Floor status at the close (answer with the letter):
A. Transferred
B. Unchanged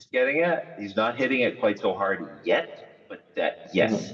B